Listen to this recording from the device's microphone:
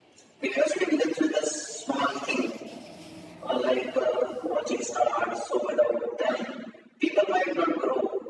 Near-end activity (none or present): none